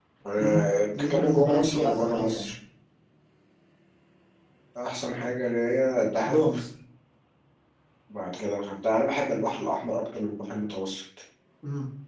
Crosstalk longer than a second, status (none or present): present